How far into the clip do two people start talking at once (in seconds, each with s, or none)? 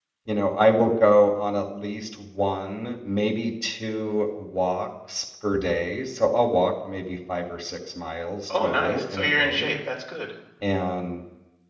8.5 s